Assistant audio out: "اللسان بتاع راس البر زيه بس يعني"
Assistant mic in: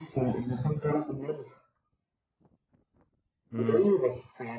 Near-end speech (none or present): present